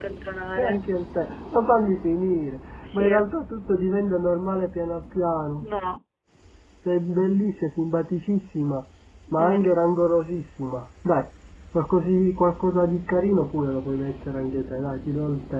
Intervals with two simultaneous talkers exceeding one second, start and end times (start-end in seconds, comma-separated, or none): none